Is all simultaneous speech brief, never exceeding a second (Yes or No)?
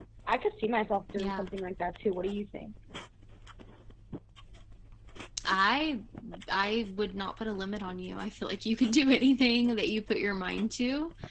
Yes